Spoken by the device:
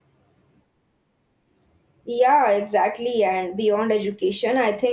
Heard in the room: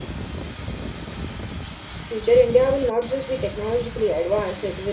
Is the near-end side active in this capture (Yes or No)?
Yes